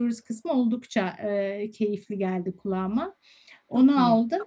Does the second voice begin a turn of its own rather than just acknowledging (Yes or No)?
No